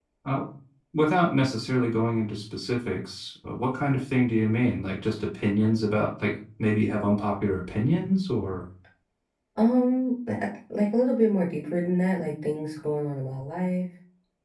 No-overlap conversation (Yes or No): Yes